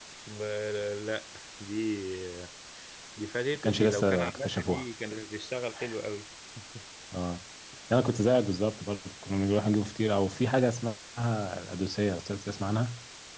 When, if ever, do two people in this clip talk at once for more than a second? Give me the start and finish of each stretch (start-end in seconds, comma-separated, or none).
3.6-4.8